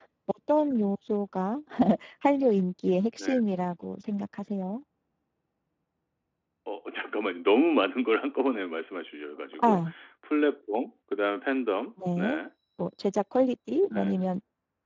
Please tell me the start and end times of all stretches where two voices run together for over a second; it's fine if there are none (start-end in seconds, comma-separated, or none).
none